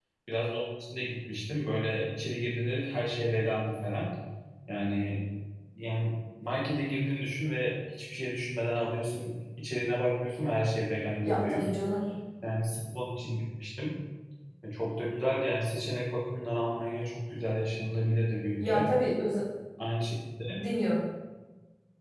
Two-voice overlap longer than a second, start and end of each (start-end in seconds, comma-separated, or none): none